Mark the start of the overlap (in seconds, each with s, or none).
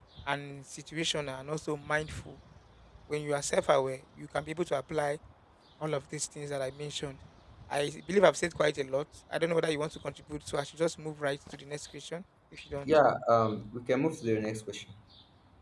none